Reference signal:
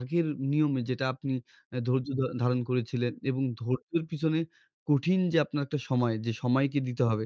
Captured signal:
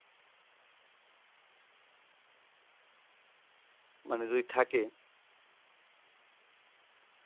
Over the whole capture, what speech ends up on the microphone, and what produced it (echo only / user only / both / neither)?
user only